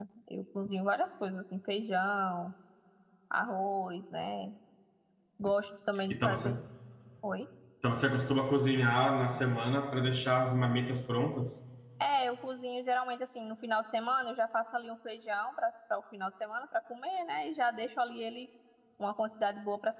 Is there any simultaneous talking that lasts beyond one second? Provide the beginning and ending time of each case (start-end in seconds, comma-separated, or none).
none